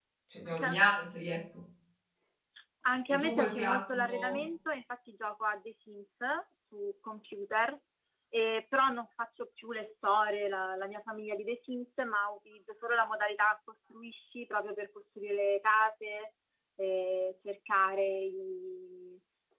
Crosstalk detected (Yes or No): Yes